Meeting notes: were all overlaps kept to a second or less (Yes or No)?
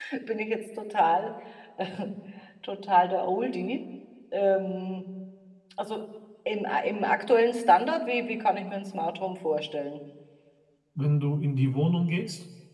Yes